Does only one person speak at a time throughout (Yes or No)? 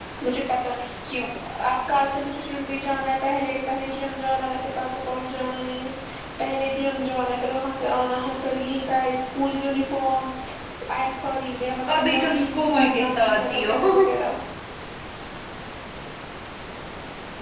No